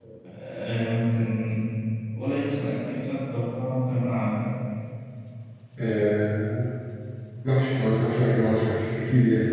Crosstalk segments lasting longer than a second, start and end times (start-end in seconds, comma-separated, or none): none